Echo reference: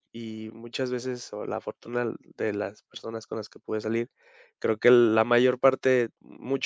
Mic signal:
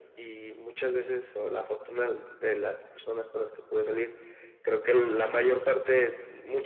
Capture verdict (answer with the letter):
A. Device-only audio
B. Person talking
A